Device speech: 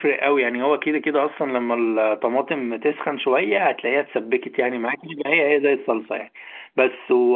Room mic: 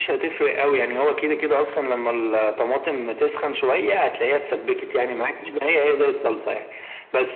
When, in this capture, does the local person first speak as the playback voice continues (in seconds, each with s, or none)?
none